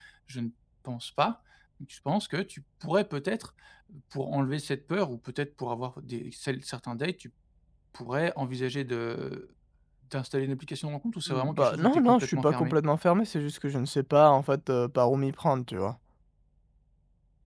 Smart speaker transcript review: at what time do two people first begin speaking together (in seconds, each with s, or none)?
11.3 s